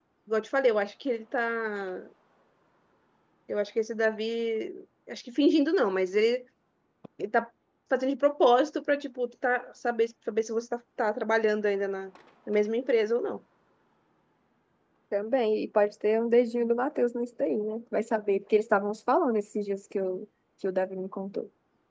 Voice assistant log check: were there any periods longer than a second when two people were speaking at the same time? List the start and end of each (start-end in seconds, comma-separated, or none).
none